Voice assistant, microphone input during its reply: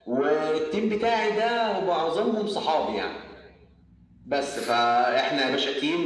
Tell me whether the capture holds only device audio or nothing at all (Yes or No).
Yes